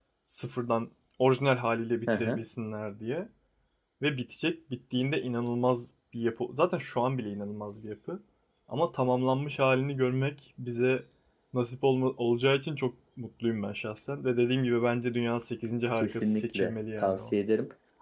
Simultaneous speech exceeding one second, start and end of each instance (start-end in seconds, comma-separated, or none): 16.0-17.3